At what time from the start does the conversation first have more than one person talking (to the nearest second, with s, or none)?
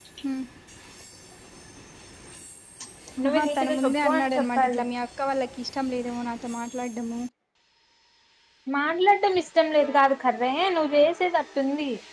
3 s